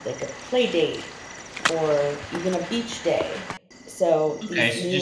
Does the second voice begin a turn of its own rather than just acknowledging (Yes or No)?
Yes